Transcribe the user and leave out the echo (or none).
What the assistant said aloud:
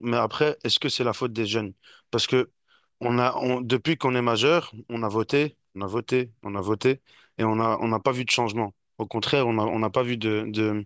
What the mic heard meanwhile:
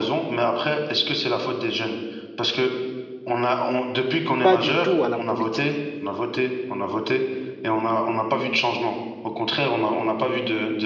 pas du tout à la politique.